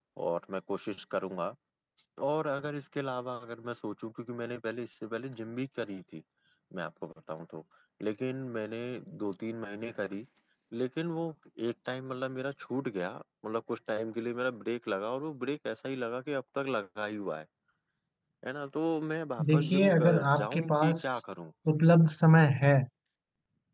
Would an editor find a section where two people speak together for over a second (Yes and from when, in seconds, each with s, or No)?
Yes, from 19.4 s